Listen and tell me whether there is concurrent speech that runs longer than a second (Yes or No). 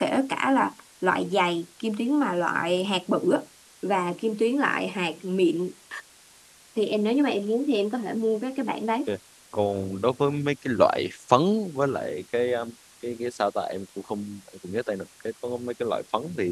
No